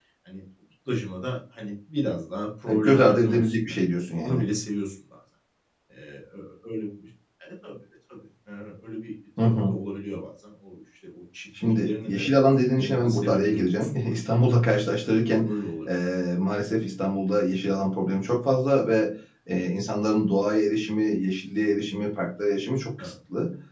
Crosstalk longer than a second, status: present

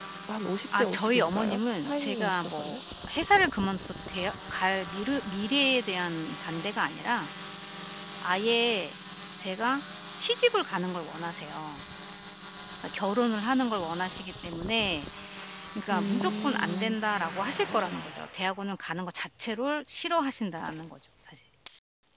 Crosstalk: present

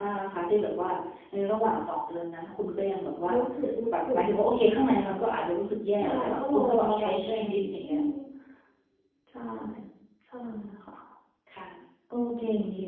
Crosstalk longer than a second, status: present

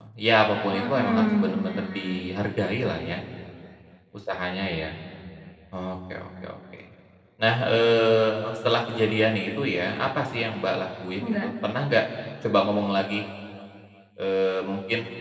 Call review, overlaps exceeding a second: present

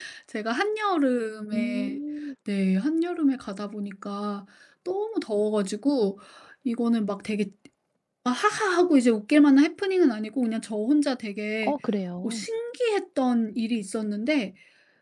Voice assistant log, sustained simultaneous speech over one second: none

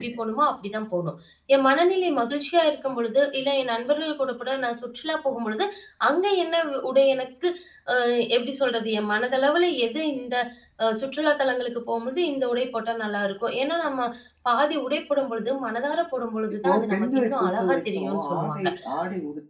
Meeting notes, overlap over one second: present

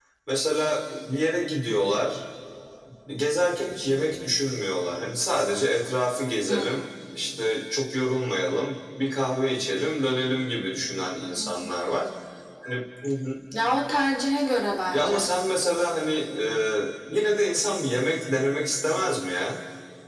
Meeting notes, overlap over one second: none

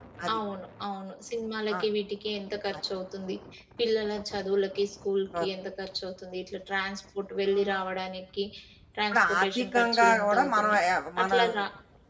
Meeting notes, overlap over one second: present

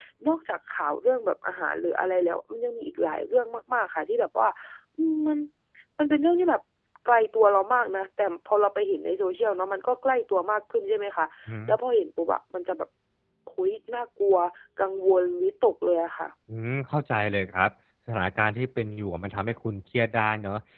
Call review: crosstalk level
none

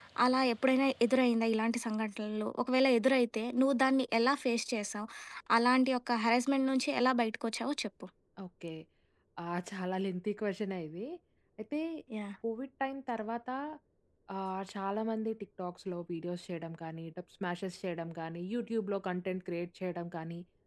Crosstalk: none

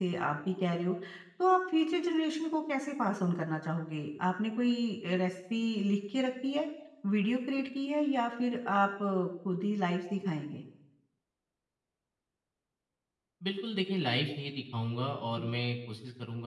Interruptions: none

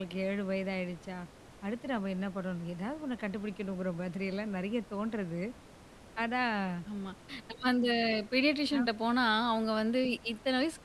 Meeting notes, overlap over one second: none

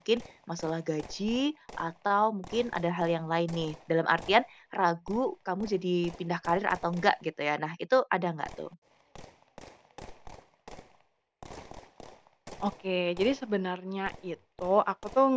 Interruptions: none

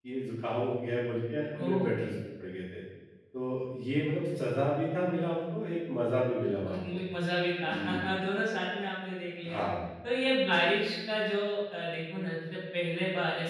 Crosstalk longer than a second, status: none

